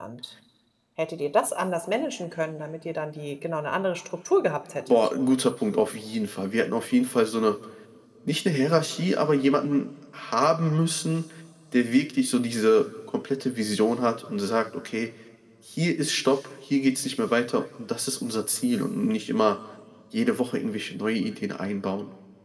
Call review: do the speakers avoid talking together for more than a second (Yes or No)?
Yes